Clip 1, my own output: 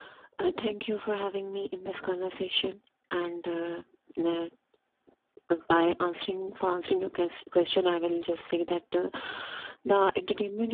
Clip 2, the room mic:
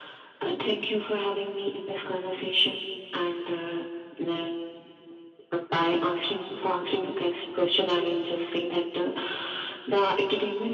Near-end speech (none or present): none